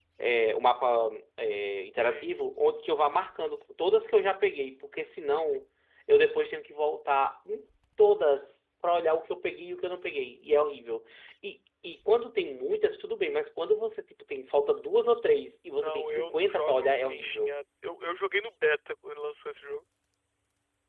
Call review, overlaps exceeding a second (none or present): present